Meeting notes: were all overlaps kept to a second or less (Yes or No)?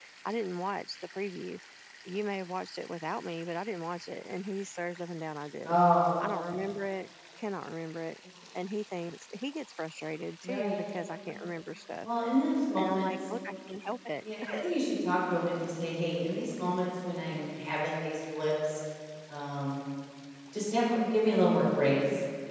Yes